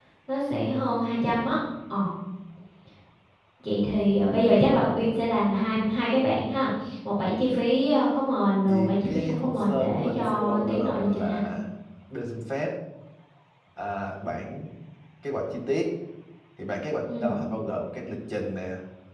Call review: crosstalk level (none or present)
present